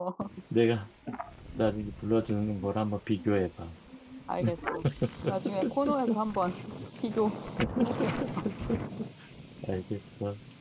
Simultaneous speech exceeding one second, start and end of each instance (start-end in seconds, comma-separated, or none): none